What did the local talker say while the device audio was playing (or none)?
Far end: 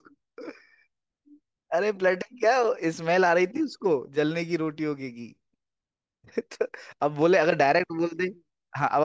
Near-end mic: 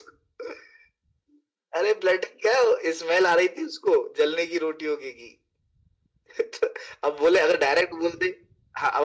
none